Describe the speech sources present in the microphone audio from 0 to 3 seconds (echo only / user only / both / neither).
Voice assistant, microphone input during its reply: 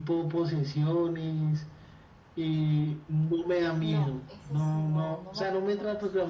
echo only